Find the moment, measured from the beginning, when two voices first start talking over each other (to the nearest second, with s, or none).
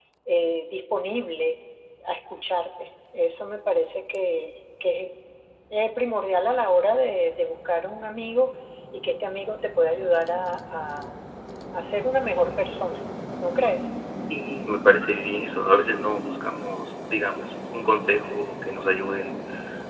none